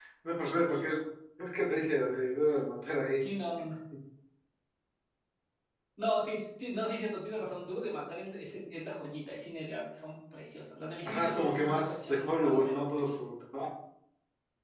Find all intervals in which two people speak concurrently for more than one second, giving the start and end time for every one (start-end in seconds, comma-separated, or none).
11.0-13.2